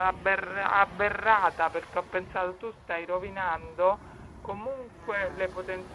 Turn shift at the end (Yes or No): No